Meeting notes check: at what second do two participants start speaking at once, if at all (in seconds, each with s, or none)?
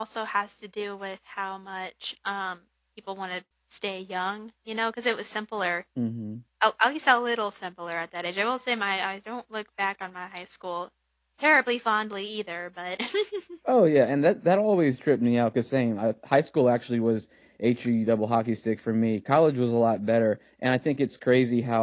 none